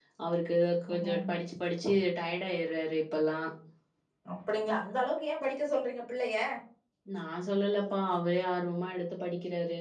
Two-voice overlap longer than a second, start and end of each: none

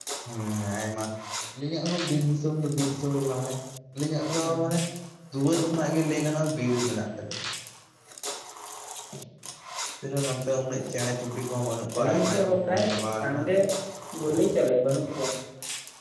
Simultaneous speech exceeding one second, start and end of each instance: 12.0-13.4

